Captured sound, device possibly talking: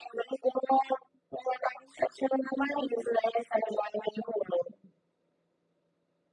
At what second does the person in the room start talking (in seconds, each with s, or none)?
none